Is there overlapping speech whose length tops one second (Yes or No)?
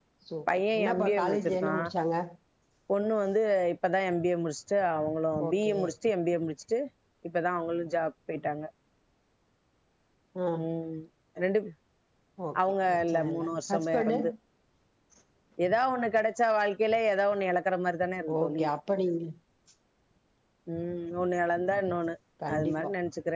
Yes